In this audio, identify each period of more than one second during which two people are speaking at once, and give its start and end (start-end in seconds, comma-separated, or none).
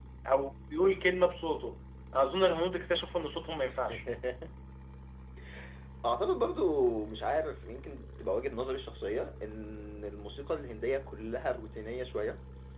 none